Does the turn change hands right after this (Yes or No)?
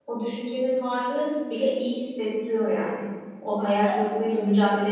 No